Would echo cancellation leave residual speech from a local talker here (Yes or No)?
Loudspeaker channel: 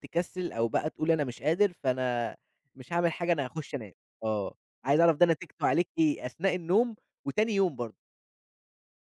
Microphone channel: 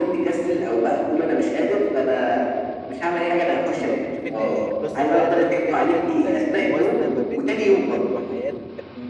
Yes